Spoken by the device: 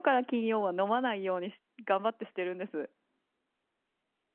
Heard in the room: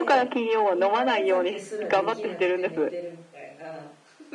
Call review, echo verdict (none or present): present